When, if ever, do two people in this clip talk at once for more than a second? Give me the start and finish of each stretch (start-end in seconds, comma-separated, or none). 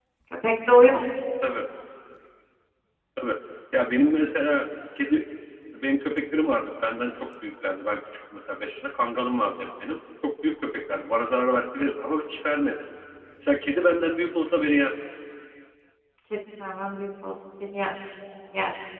none